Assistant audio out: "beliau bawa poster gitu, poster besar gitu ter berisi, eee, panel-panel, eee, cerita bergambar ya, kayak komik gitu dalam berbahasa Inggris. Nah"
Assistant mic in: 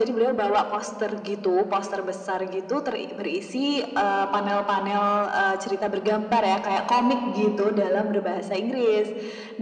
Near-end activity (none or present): none